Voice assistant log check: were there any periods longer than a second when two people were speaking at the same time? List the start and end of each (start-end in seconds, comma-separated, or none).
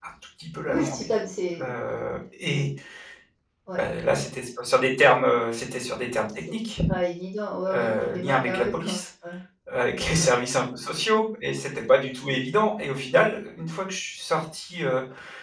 7.7-9.0